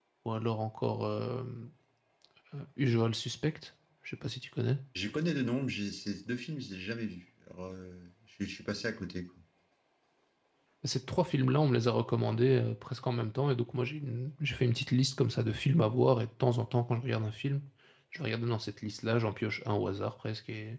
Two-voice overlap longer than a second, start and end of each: none

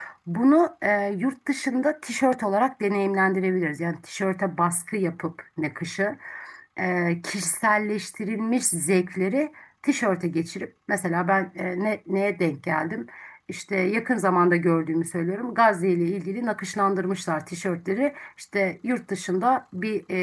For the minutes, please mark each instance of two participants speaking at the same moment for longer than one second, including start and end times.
none

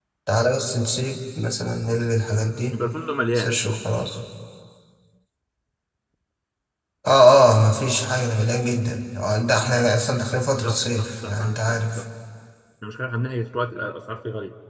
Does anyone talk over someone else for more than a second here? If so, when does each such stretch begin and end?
10.6-12.0

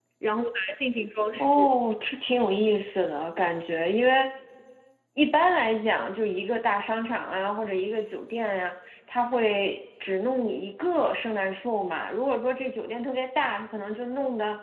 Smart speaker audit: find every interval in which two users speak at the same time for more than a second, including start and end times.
none

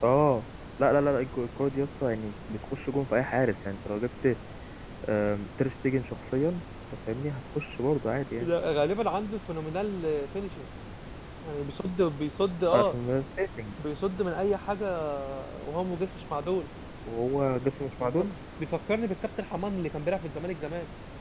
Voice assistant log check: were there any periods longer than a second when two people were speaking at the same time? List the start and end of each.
none

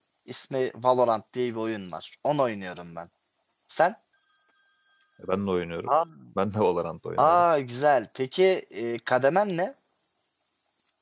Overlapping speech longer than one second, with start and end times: none

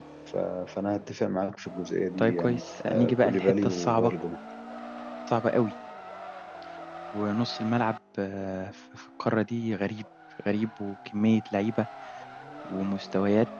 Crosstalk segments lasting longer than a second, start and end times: 2.2-4.1

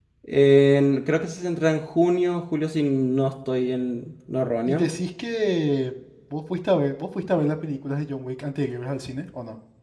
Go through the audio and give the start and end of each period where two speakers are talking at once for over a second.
none

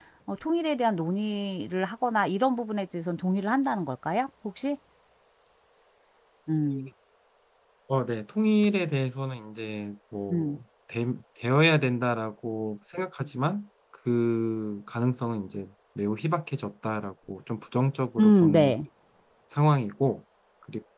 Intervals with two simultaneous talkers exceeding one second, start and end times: none

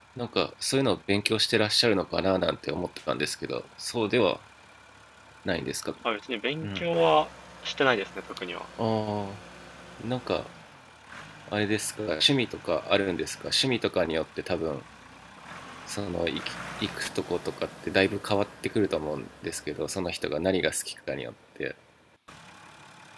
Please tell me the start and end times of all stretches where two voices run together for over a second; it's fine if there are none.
none

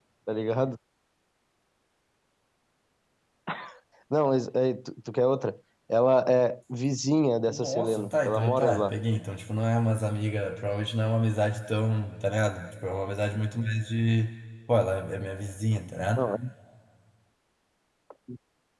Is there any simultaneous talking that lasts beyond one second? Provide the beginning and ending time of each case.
7.5-8.9

